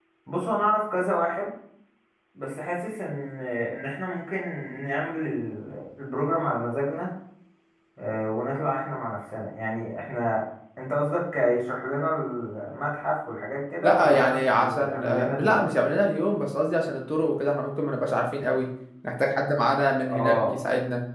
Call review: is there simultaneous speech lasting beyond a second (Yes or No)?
Yes